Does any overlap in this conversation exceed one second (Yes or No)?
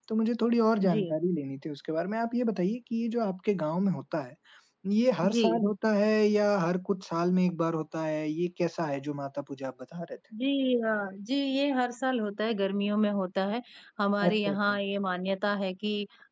No